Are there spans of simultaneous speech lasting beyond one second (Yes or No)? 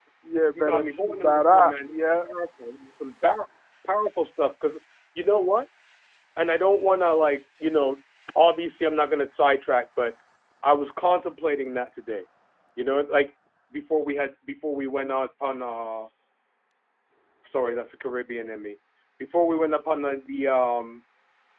Yes